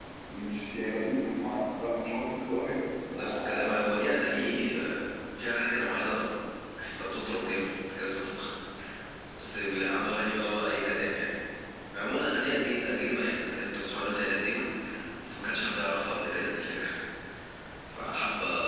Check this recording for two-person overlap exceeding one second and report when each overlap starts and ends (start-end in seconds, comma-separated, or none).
3.1-4.6